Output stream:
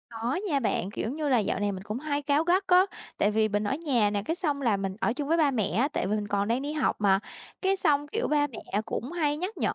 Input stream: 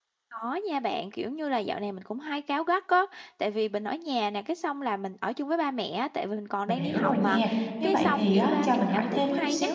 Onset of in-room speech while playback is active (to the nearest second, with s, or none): 7 s